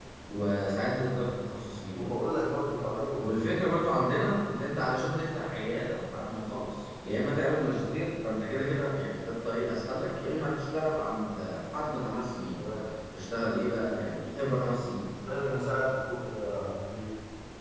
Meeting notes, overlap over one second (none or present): none